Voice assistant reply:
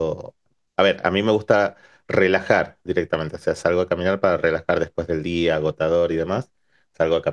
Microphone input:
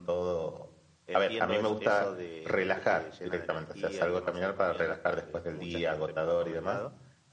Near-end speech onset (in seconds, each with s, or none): 1.0 s